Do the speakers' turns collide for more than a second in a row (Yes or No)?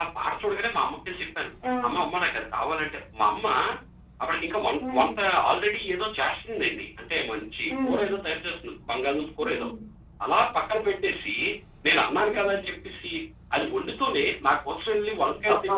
No